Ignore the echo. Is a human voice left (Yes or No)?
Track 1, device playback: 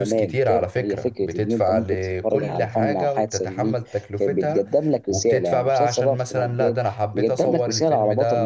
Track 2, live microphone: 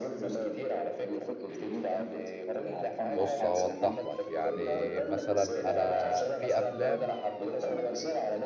Yes